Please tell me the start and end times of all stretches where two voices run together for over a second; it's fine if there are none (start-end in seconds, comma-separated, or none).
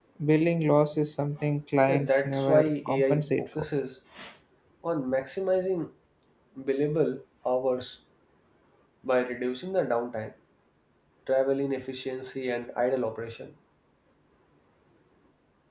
1.9-3.6